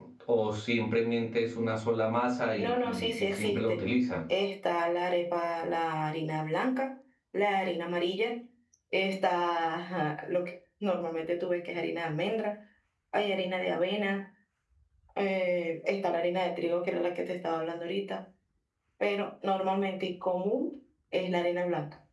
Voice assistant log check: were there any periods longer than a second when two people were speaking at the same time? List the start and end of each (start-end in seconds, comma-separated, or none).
2.6-3.8